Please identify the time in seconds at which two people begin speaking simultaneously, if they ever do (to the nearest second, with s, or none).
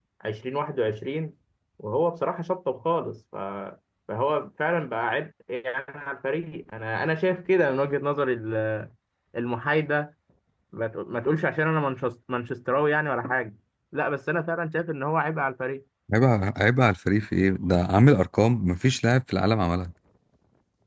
none